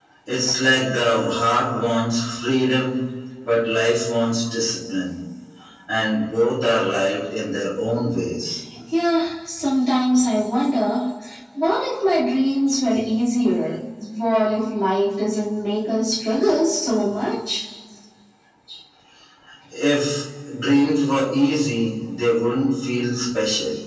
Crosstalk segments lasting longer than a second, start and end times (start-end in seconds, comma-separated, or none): none